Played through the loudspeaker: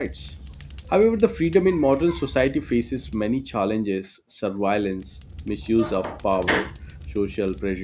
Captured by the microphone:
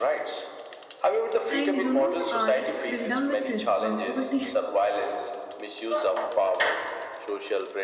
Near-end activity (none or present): present